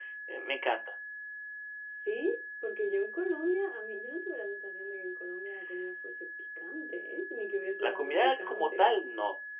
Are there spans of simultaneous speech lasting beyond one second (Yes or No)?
Yes